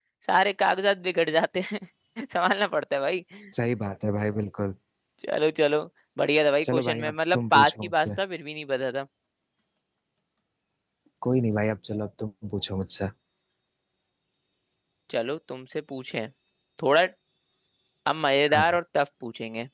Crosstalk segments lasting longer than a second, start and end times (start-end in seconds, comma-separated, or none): 6.6-8.1